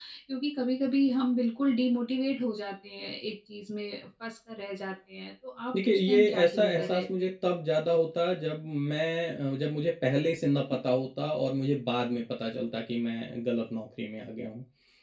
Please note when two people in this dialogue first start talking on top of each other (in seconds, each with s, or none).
5.7 s